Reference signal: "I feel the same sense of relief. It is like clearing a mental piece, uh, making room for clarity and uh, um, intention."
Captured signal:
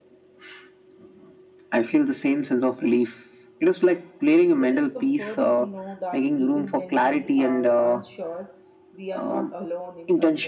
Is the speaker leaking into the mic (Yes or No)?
Yes